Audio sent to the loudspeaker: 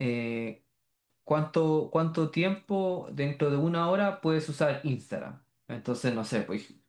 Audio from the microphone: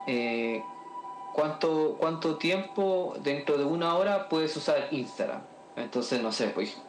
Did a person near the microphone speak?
No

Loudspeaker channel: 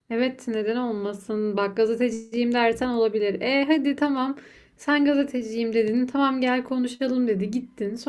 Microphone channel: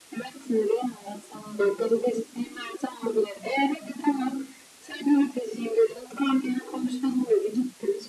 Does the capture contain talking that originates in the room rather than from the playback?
No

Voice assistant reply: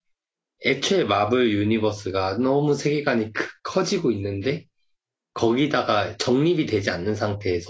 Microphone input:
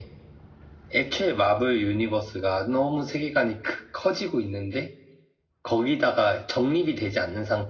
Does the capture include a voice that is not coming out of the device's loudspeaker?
No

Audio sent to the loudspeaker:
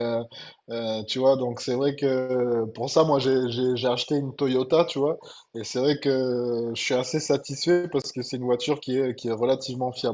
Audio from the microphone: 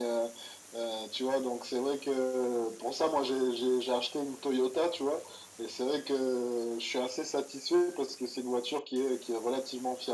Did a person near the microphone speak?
No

